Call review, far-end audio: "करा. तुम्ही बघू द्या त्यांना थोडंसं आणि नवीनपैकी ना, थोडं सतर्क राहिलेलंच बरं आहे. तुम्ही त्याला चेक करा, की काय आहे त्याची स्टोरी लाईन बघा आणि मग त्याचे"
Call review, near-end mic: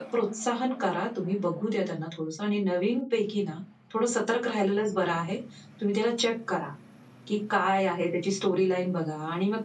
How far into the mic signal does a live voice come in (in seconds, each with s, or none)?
none